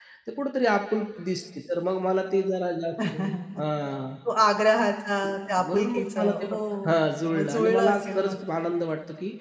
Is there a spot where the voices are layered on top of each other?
Yes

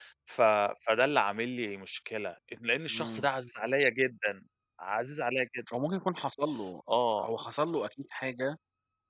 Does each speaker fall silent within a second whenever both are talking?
Yes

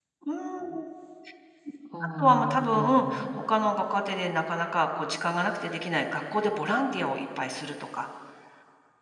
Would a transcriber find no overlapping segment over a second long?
No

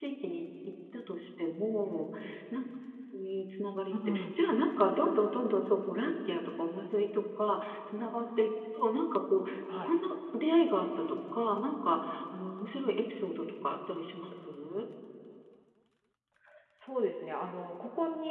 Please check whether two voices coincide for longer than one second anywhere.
No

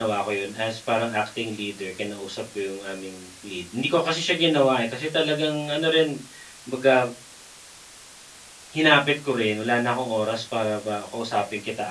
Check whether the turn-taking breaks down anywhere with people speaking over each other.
No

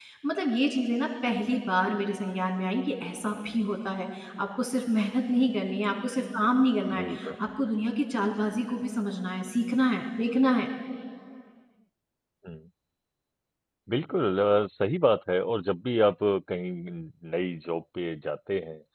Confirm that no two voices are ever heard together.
Yes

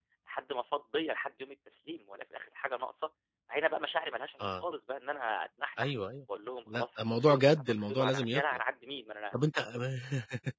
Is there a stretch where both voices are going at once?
Yes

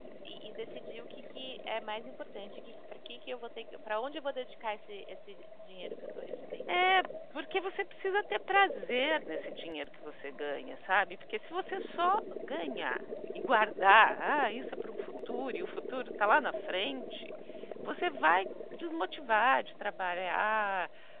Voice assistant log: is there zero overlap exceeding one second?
Yes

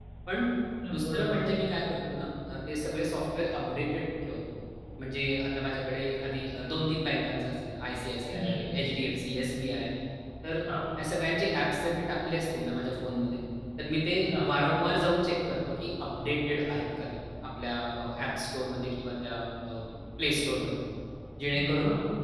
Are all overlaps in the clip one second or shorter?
Yes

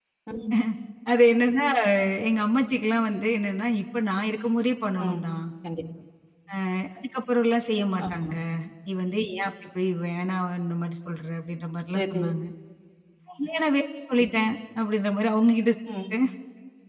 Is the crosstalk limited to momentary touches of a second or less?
Yes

